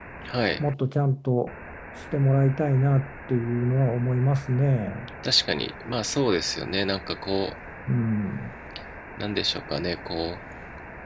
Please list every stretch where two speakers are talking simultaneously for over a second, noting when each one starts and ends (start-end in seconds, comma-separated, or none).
none